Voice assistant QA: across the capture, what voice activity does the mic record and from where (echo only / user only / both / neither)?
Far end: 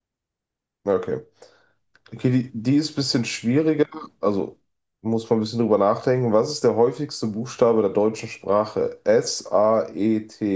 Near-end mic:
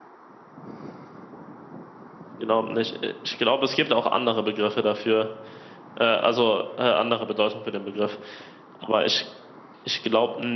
user only